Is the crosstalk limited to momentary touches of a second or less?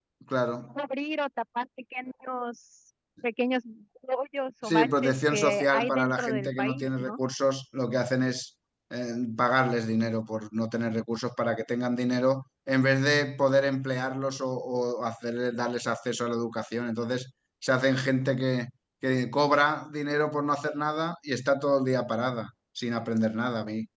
No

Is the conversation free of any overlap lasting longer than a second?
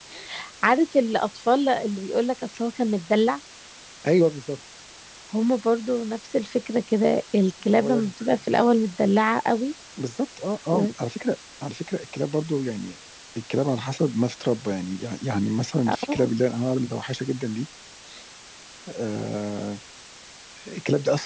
Yes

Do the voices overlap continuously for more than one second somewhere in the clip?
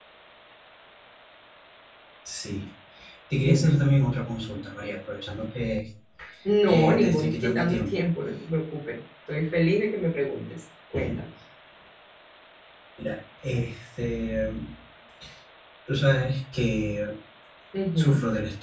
Yes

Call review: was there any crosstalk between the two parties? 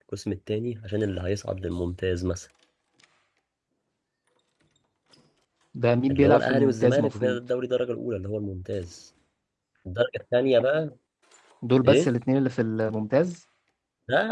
Yes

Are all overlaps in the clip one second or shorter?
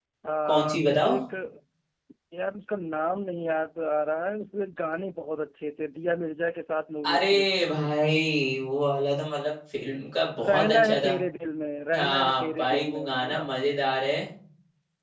No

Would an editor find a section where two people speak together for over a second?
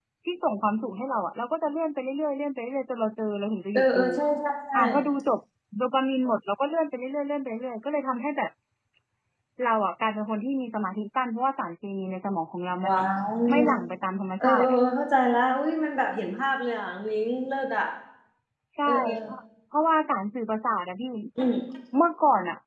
No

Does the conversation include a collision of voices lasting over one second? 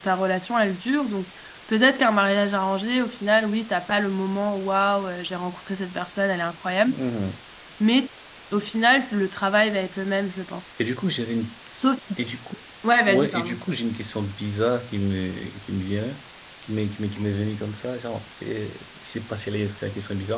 No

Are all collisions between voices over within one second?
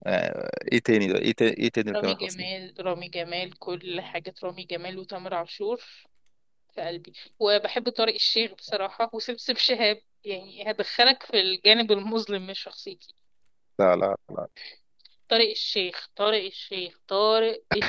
Yes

